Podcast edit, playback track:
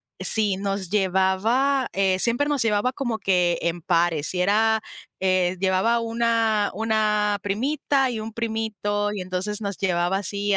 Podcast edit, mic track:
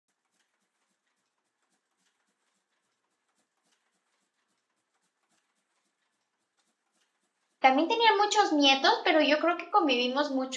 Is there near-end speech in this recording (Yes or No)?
Yes